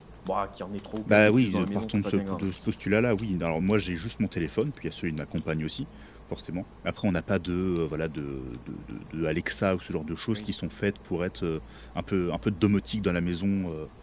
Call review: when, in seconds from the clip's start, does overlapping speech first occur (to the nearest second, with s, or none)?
1 s